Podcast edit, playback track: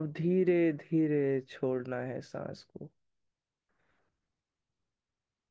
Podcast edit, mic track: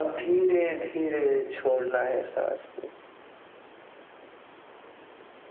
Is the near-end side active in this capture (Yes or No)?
No